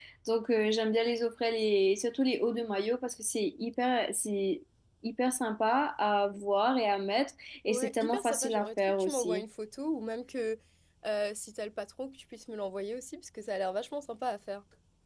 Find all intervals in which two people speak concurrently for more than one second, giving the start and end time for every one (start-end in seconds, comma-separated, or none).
7.7-9.4